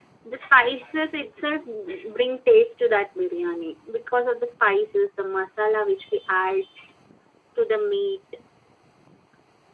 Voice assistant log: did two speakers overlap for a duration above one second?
No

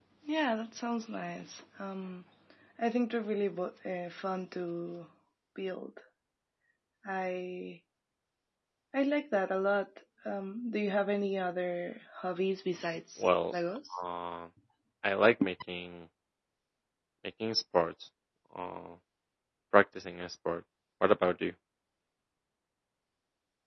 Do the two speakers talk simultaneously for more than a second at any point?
No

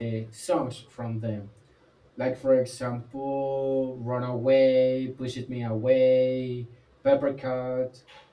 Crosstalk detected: No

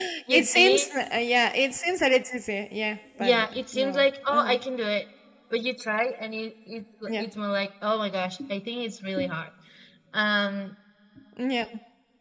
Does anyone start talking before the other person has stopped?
Yes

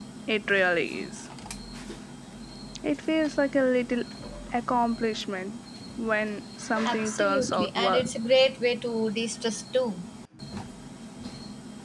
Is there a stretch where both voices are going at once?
Yes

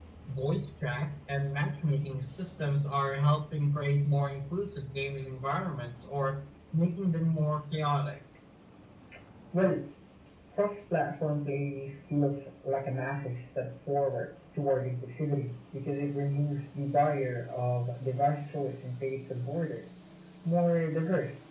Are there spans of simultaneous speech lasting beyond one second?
No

